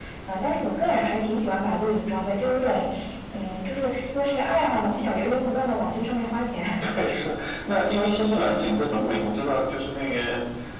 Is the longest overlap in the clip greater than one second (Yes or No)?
No